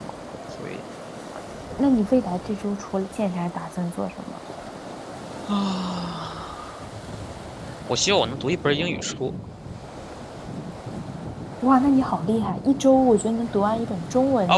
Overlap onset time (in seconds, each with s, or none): none